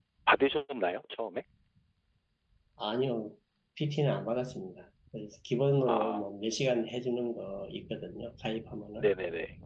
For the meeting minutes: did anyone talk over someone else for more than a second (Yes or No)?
No